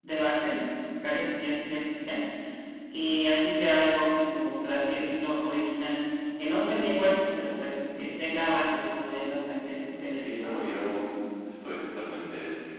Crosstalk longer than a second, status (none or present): none